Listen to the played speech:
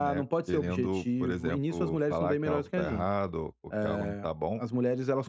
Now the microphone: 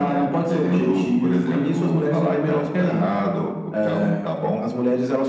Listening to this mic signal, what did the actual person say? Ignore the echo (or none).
none